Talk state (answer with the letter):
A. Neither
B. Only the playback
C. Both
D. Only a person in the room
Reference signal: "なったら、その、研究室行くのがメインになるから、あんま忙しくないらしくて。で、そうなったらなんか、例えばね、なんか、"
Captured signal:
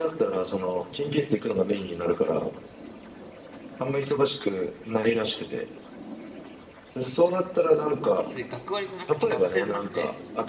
C